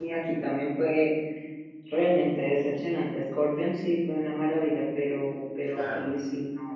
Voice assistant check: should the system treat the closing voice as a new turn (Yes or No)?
No